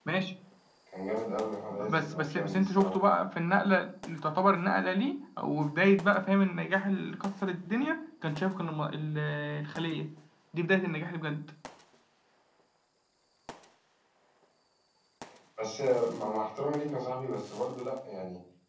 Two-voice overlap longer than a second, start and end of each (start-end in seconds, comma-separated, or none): 1.7-2.9